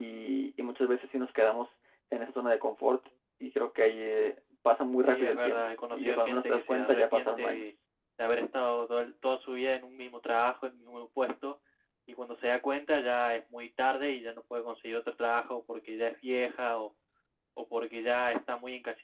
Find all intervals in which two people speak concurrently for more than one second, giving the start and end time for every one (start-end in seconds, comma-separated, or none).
5.1-7.6